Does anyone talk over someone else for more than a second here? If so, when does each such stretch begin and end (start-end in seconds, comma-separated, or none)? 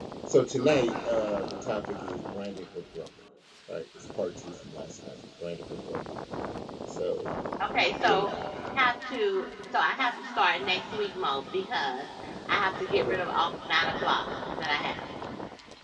none